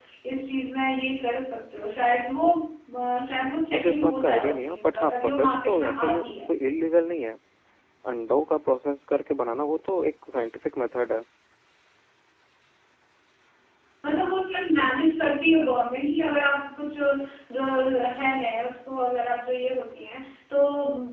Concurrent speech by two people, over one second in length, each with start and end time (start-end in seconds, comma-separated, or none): 3.7-6.5